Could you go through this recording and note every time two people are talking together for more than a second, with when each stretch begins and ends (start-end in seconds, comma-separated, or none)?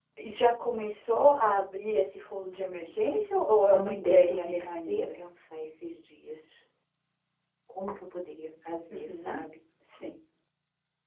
3.7-5.2